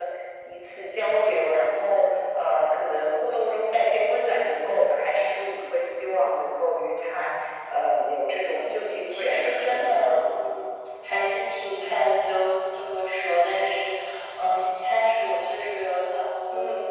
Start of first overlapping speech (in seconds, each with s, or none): 8.6 s